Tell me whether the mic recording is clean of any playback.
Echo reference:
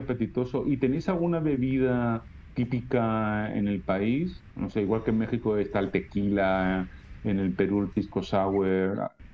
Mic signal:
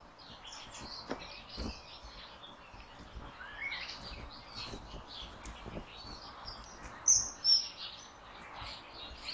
Yes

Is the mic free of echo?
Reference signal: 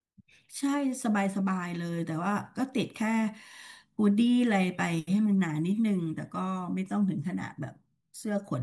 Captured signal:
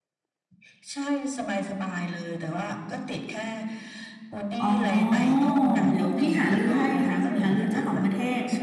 No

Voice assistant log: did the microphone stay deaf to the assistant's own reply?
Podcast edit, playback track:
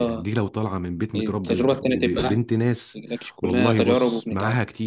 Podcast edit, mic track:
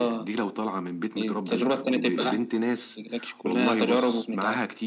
No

